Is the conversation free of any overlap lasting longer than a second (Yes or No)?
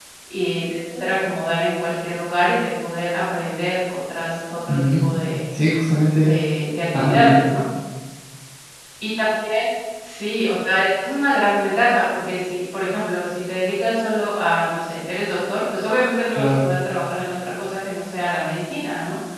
Yes